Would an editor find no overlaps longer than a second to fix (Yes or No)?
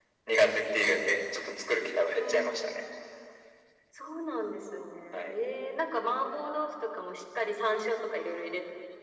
Yes